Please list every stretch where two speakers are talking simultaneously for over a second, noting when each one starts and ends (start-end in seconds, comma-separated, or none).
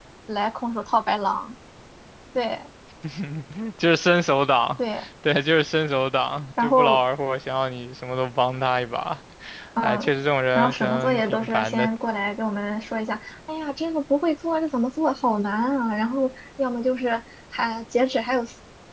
10.6-11.9